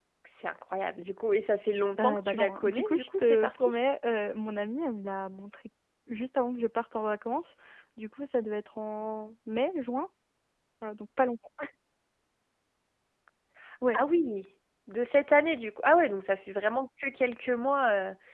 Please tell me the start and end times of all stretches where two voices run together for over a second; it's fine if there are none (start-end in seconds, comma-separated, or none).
2.0-3.8